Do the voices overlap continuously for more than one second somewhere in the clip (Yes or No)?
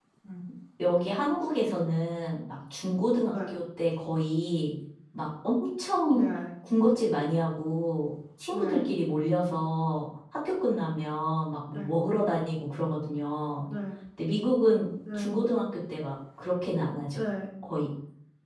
No